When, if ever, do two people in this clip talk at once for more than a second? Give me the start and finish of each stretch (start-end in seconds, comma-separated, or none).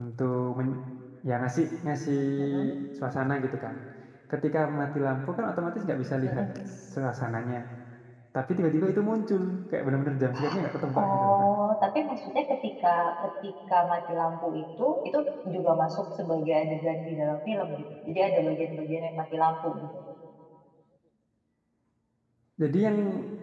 none